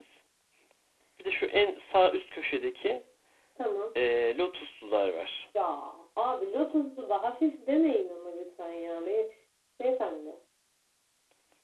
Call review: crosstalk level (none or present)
none